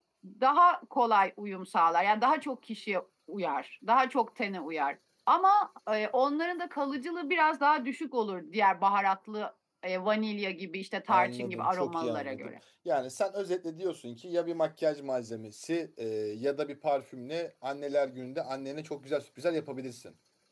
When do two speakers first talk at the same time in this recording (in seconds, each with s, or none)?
11.1 s